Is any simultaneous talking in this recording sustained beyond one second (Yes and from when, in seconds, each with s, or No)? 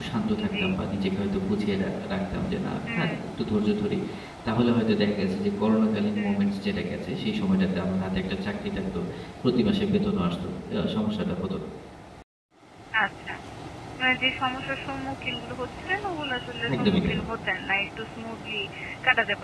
No